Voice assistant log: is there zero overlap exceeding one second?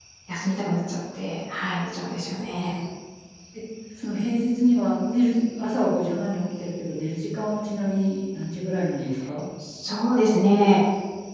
Yes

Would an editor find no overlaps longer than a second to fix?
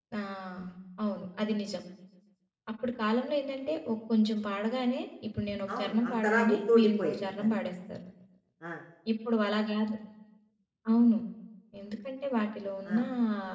No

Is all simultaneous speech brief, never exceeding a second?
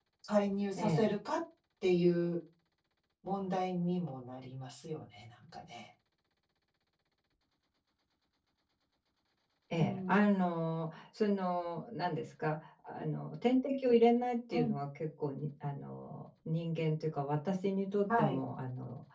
Yes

